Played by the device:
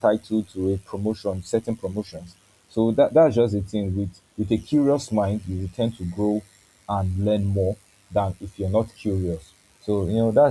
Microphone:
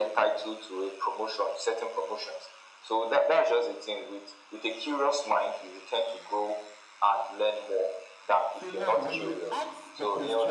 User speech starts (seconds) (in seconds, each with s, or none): 8.5 s